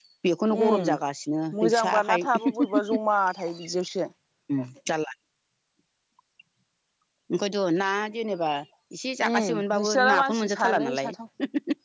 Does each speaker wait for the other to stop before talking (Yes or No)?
No